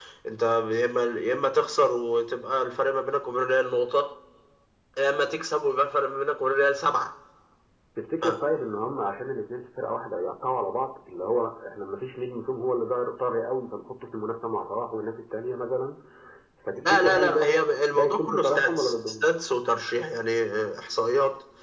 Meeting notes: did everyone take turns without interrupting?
No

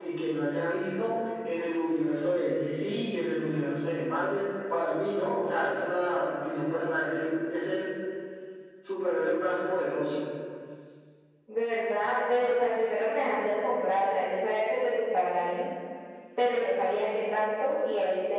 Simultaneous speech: No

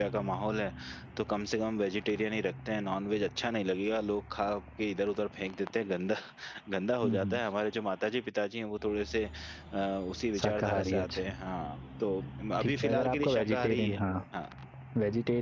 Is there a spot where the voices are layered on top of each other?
Yes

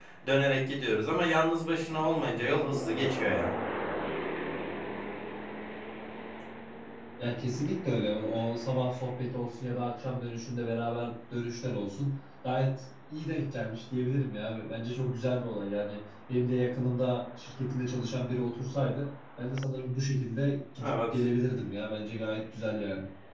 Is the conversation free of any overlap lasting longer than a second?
Yes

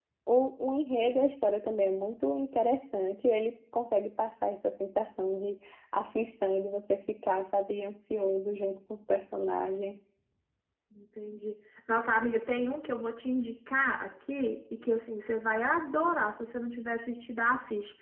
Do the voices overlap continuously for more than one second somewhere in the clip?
No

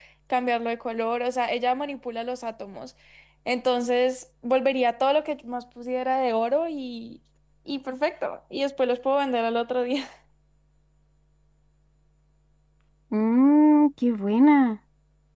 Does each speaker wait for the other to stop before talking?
Yes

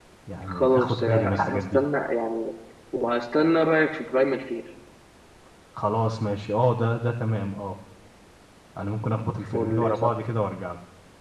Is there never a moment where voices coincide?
No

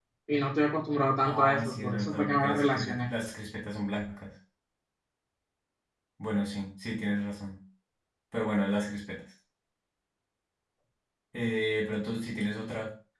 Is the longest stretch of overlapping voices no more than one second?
No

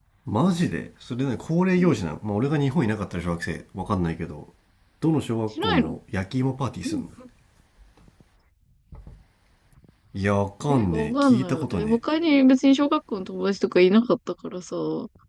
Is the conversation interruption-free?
No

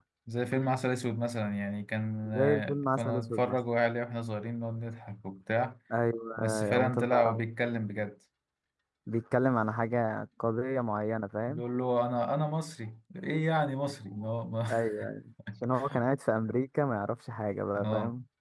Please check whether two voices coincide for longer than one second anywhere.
Yes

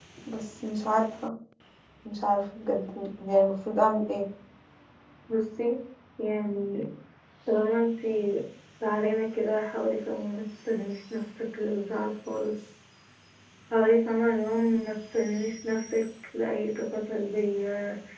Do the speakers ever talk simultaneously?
No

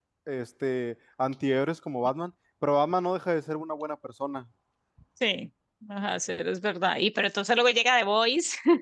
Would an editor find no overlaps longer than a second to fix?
Yes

